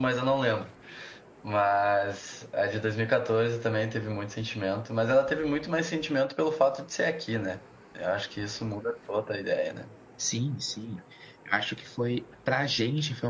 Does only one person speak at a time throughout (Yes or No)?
Yes